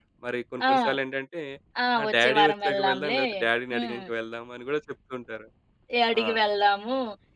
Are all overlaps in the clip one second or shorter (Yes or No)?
No